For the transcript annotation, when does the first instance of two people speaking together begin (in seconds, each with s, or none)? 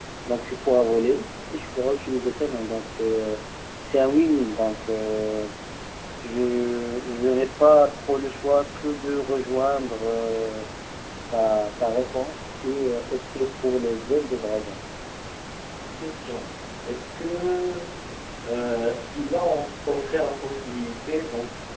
none